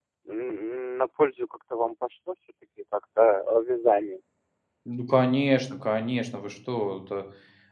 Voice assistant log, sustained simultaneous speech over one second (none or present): none